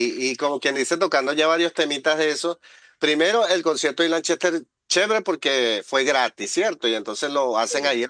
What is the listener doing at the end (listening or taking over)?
listening